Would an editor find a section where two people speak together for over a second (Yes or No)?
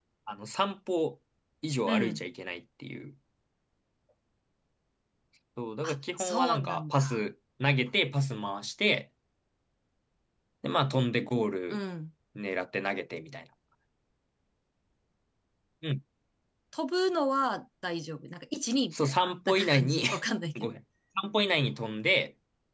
Yes